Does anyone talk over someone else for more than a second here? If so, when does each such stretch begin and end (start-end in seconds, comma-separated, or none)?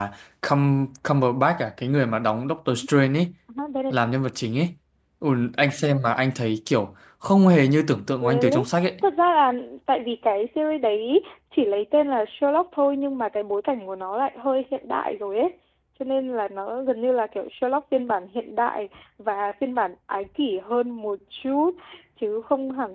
none